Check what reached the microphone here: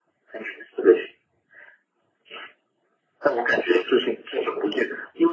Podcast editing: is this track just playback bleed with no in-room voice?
Yes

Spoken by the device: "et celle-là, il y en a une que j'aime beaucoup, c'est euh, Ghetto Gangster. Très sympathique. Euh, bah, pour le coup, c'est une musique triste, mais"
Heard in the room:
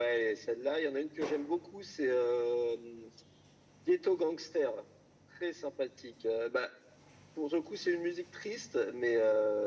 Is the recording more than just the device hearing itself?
No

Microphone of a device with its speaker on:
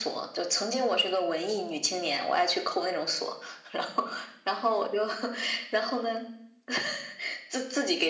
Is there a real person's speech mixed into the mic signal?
No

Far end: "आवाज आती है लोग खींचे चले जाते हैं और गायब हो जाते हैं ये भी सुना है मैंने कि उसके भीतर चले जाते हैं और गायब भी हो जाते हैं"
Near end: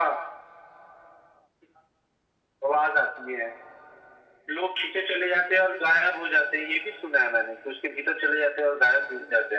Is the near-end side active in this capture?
No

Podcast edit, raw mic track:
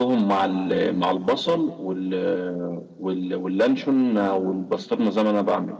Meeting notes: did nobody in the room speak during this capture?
Yes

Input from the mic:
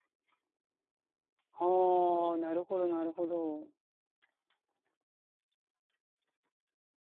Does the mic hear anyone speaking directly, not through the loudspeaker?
Yes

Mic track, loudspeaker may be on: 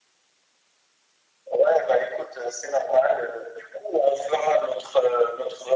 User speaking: No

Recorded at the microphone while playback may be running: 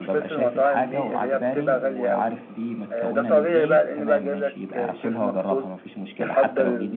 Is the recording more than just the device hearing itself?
Yes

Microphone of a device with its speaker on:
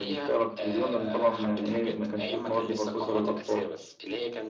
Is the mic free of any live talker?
Yes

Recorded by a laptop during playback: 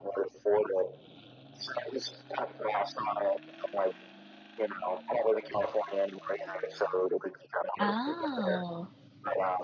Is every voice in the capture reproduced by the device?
No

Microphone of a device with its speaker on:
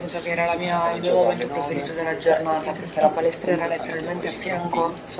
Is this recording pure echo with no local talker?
Yes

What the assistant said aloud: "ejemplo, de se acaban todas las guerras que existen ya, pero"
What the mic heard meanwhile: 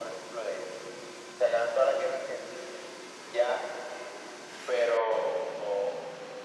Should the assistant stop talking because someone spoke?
No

